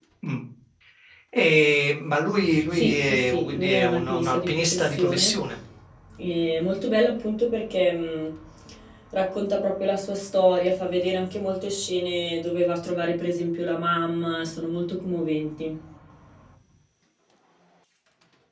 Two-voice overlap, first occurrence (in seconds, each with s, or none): 2.7 s